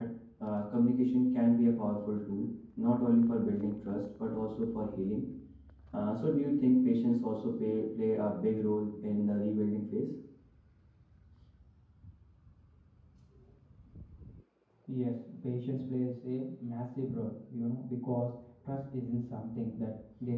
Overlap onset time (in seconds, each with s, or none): none